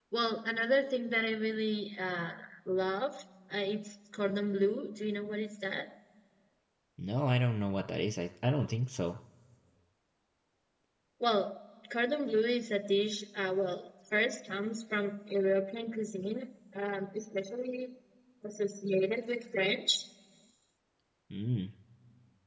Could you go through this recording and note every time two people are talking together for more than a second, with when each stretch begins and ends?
none

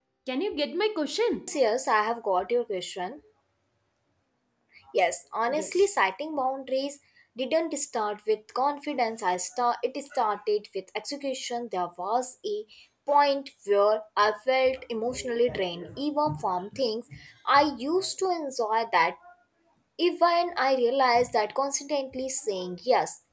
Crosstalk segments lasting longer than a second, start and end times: none

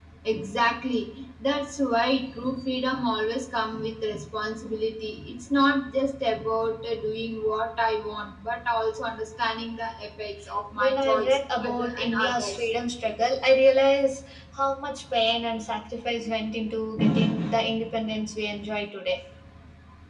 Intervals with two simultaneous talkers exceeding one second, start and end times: 10.8-12.7

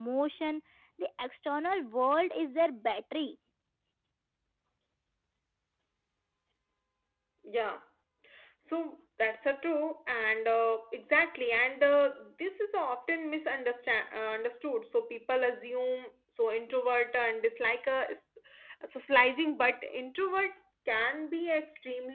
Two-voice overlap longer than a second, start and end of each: none

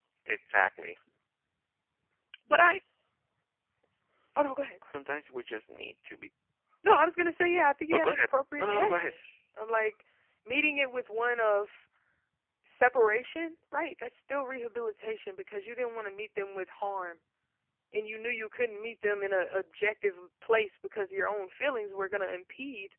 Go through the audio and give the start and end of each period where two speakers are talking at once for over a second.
7.9-9.1

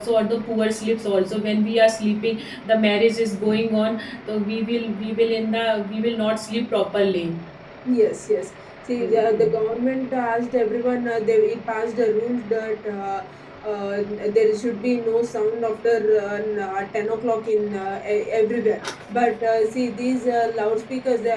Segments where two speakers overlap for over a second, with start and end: none

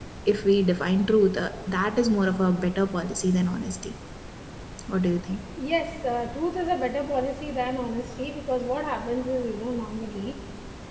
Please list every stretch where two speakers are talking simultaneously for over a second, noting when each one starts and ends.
none

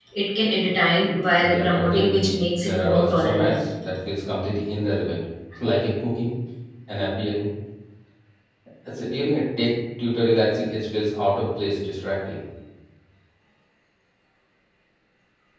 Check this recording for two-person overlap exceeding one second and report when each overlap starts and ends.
1.4-3.5

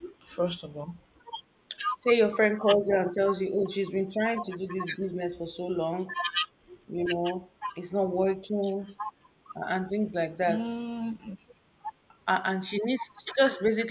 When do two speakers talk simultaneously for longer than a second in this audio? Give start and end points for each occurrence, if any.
none

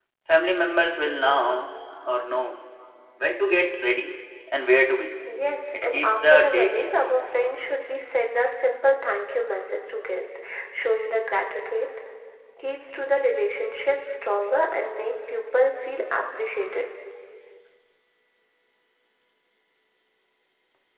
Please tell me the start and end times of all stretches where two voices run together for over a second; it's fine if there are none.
5.7-7.1

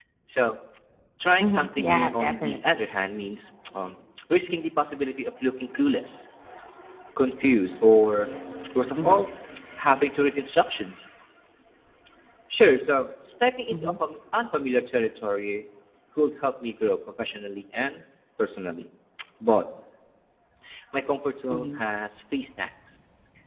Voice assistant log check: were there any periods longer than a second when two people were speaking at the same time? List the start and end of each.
1.4-2.8

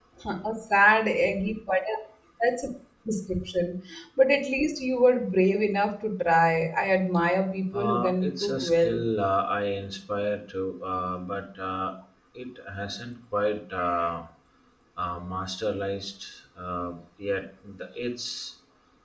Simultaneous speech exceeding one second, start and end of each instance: 7.7-9.0

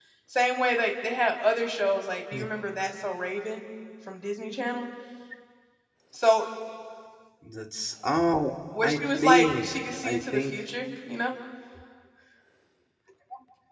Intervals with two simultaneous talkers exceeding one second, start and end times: 8.8-10.6

